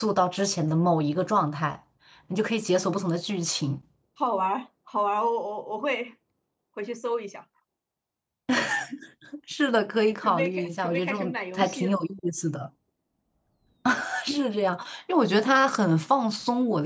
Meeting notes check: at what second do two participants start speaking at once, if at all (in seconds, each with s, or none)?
10.2 s